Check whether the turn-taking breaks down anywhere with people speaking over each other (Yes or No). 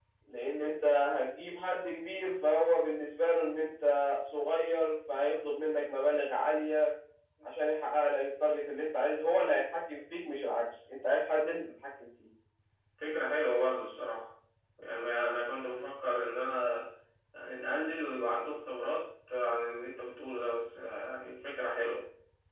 No